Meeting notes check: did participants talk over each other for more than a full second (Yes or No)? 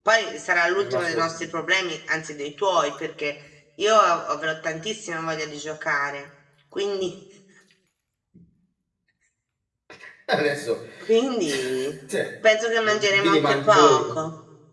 Yes